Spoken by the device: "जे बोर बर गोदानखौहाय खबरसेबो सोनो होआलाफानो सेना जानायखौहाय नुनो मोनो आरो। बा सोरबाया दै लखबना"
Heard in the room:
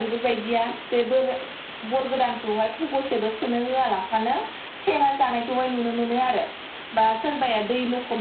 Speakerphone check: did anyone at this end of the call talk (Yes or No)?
No